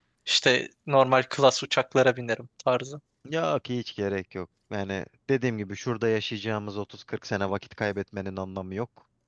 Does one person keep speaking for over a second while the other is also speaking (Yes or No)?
No